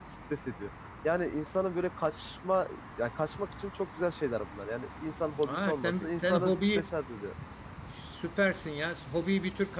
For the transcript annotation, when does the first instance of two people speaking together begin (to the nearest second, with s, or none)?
5 s